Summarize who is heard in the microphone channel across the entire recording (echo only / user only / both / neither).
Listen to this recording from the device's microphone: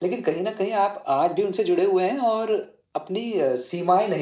echo only